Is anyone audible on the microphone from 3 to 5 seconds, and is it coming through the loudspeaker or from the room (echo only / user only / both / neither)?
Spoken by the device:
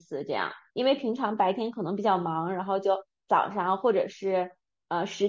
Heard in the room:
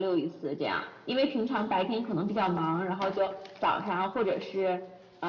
echo only